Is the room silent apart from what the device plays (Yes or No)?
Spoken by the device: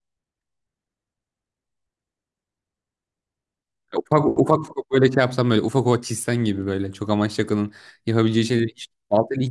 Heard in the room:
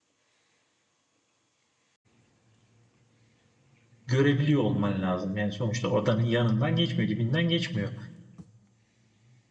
No